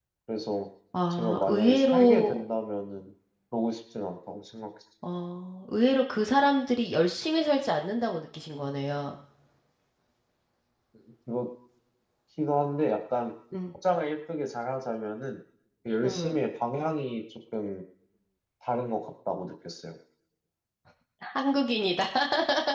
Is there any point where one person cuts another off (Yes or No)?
Yes